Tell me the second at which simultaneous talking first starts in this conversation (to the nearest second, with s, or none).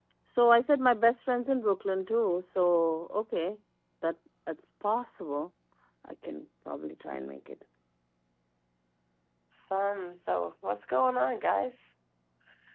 none